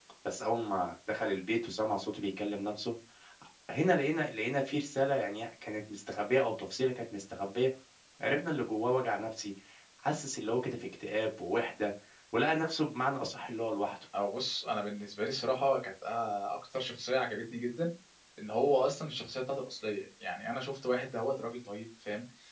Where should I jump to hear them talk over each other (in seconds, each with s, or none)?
none